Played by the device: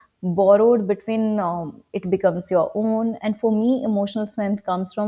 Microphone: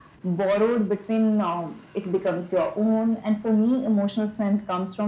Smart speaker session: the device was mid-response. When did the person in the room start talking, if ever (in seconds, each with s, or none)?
none